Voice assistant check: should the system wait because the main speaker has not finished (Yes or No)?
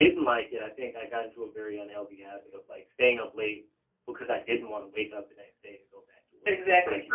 No